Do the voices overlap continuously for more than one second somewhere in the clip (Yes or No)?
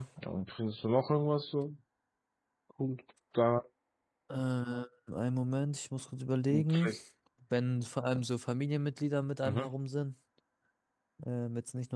No